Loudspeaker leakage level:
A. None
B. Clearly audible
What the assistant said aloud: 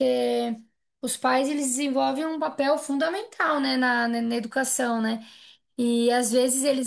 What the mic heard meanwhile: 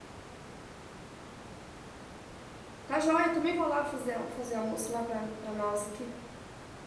A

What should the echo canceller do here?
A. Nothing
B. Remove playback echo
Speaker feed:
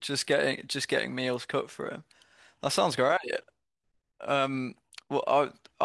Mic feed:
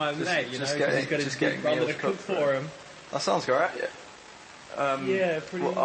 B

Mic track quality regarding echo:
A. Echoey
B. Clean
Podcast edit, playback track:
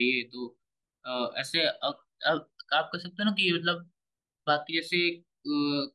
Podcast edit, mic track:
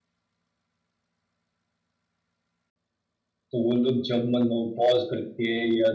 B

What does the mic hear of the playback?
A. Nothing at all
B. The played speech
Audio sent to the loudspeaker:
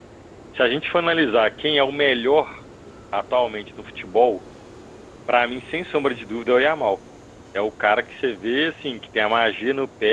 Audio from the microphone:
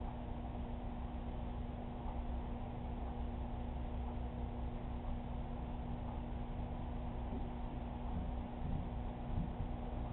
A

